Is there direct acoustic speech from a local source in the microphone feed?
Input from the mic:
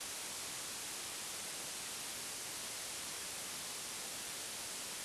No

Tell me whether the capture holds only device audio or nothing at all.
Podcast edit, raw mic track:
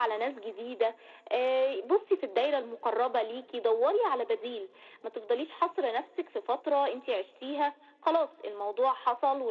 Yes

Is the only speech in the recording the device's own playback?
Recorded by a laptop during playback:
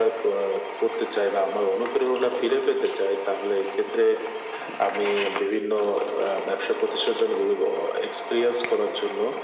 Yes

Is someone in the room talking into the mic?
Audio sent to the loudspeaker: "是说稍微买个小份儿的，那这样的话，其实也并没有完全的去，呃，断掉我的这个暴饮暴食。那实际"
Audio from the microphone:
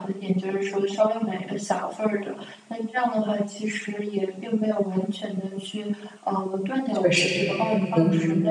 Yes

